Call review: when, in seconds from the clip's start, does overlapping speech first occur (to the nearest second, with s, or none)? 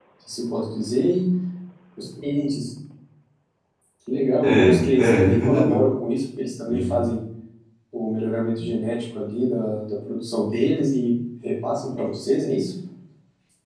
4 s